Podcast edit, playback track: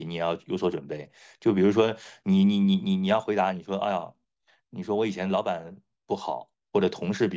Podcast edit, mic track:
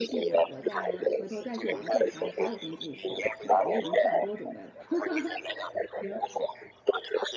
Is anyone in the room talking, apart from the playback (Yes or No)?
Yes